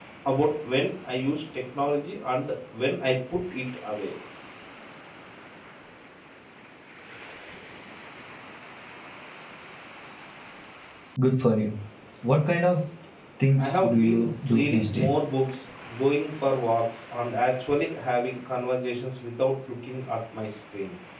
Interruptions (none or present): present